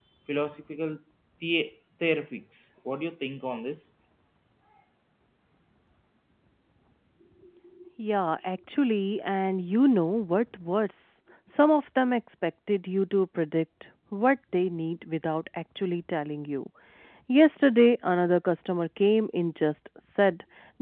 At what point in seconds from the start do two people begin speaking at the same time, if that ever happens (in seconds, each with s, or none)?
none